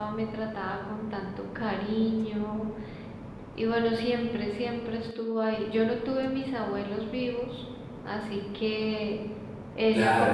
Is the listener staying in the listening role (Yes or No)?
No